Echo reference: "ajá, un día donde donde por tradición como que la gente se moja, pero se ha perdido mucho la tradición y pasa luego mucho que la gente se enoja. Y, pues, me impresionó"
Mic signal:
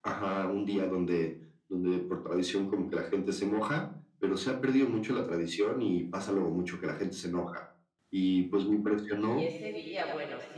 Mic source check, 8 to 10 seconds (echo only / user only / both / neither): both